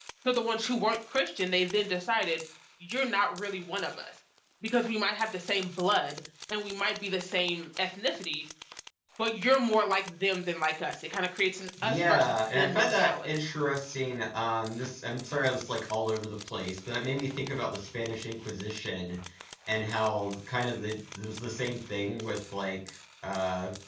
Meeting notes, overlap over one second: present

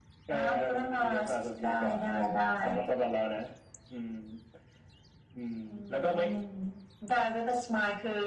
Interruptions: present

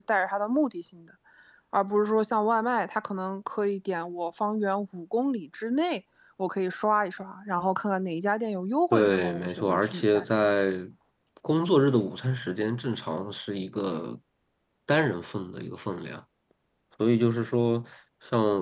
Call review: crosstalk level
present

